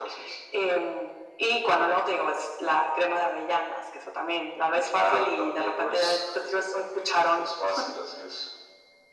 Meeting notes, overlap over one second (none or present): present